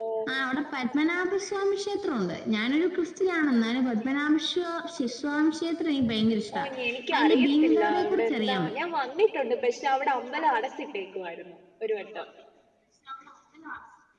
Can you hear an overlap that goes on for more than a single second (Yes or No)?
Yes